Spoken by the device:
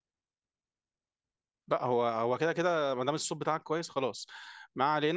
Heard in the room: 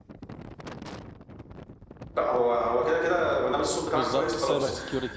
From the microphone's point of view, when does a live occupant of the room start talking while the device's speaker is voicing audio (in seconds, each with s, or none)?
3.9 s